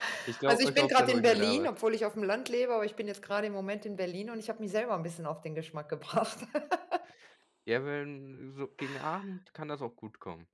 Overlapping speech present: Yes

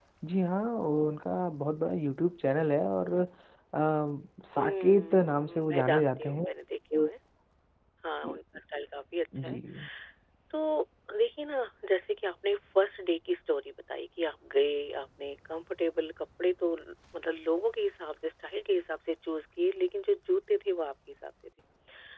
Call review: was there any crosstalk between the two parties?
Yes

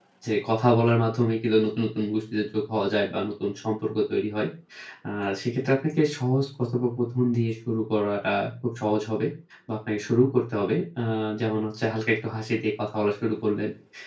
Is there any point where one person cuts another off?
No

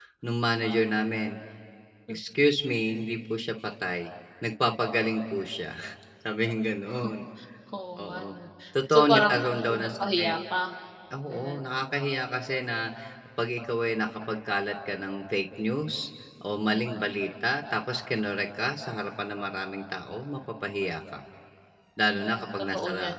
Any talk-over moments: Yes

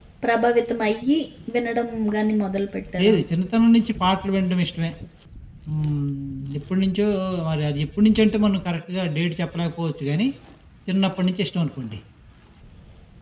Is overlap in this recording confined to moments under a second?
Yes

